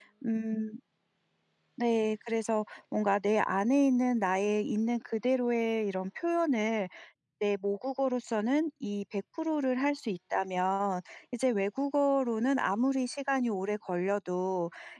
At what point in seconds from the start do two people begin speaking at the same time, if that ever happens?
none

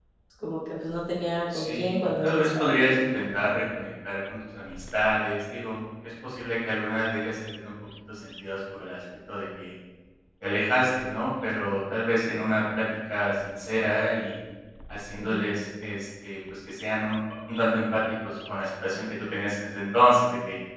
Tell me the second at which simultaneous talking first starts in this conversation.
2 s

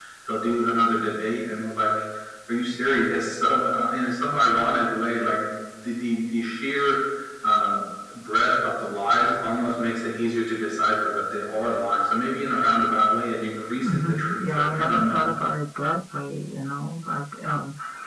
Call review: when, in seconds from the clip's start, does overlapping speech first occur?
14 s

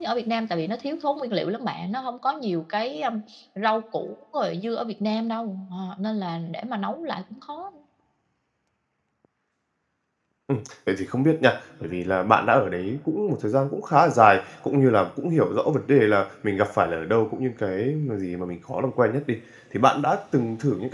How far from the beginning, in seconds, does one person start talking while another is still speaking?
none

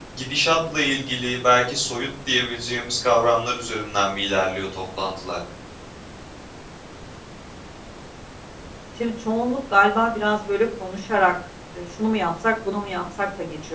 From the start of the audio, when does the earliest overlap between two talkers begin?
none

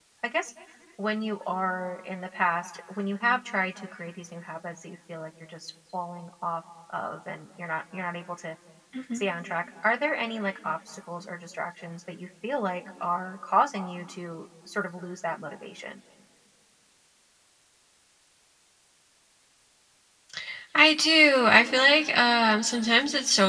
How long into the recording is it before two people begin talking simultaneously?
none

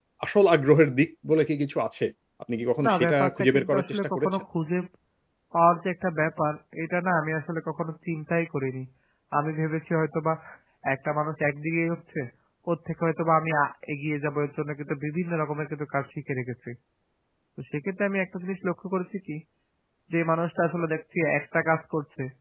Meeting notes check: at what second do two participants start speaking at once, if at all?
3 s

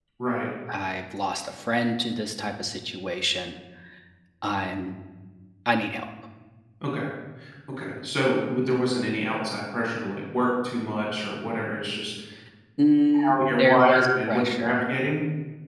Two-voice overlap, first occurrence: 13 s

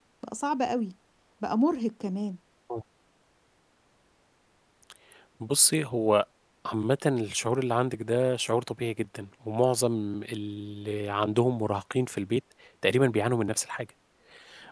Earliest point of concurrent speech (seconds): none

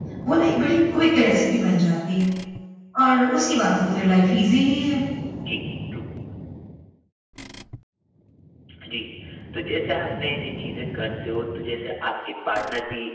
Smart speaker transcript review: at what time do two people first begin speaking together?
none

